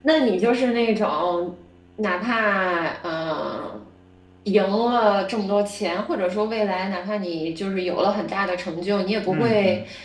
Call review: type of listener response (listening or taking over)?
listening